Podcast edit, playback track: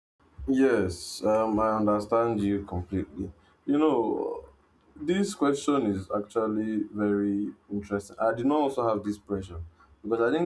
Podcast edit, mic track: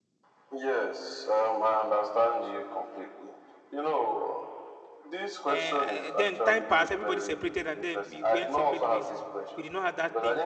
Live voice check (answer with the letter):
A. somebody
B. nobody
A